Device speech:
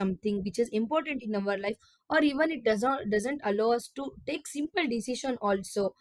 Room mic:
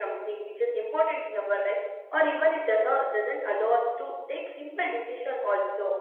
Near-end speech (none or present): none